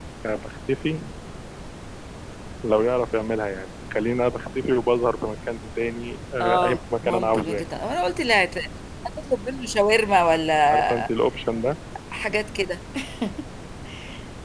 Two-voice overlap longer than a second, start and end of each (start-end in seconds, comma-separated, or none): 6.4-7.6